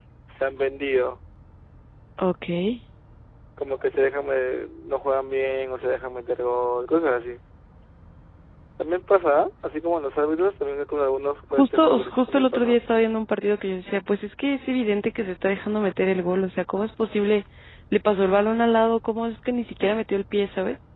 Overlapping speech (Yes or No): Yes